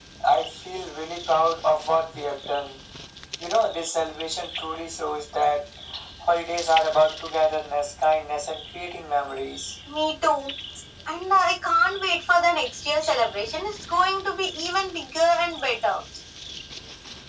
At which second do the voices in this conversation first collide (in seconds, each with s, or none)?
none